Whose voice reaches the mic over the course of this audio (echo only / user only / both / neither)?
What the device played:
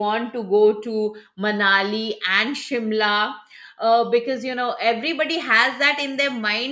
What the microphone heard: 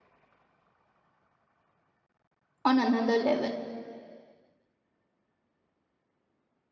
user only